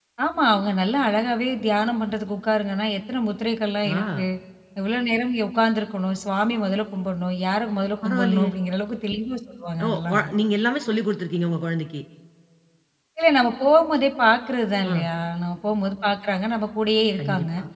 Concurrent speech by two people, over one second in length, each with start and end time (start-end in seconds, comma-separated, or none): none